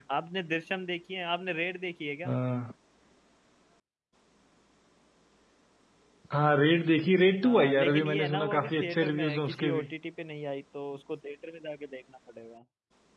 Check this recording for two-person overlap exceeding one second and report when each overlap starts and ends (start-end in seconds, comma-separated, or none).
7.4-9.9